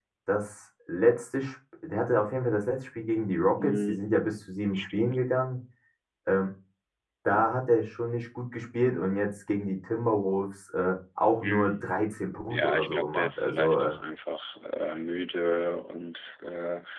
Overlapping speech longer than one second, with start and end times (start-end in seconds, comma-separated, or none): 12.5-13.9